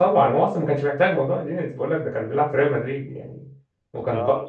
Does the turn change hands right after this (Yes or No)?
No